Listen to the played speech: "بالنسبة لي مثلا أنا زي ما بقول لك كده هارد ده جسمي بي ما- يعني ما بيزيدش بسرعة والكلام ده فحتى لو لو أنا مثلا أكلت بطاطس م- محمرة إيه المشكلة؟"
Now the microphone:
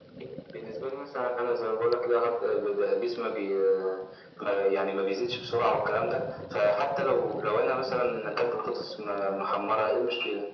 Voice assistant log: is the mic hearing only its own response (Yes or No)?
Yes